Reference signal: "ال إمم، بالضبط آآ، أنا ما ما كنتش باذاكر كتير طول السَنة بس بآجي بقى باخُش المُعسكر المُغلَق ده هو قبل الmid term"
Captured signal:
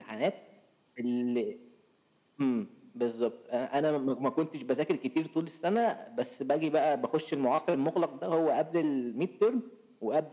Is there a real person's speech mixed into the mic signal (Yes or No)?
No